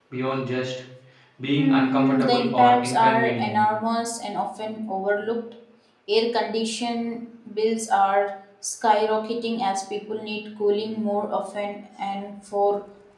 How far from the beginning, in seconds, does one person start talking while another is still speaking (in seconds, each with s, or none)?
1.6 s